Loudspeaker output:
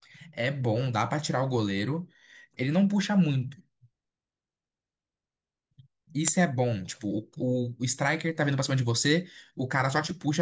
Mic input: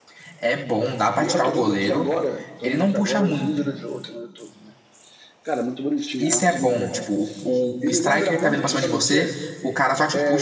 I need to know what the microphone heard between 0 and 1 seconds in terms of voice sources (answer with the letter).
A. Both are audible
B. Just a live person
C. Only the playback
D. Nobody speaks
C